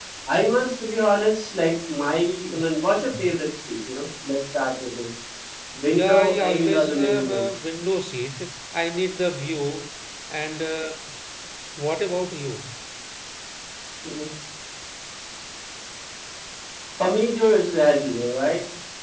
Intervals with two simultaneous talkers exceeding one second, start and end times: 5.9-7.4

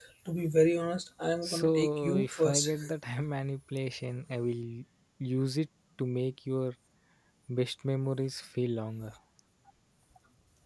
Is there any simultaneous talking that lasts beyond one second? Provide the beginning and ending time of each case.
1.4-2.7

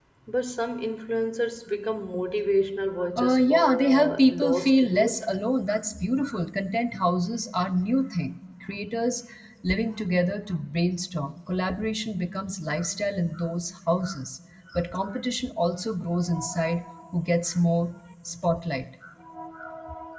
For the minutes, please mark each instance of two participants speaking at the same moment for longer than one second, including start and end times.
3.2-5.2

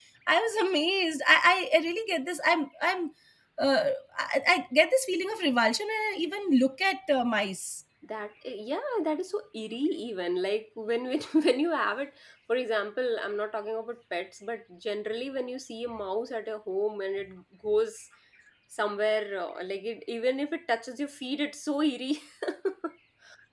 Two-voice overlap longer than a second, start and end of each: none

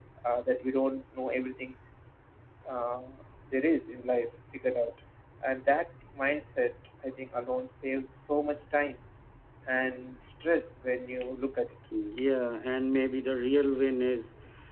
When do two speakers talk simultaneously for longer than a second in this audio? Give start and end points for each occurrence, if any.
none

